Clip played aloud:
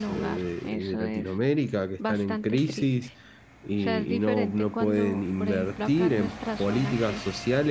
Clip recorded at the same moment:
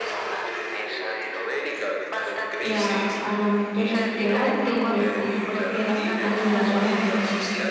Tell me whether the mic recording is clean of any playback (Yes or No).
No